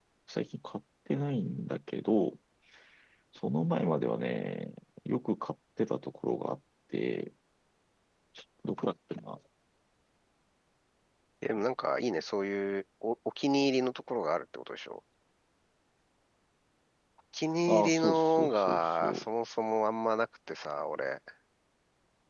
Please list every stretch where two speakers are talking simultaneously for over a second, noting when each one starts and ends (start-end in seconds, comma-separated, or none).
17.7-19.3